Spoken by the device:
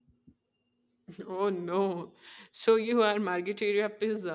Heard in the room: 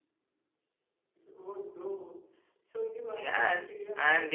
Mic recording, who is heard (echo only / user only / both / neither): both